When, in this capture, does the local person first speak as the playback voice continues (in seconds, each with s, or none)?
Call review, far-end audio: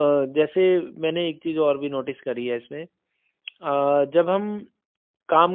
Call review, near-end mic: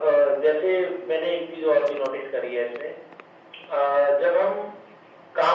none